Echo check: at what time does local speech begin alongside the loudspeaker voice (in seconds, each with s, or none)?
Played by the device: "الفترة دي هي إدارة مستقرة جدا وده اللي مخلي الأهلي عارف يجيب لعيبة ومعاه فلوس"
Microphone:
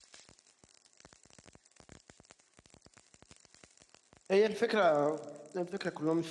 4.3 s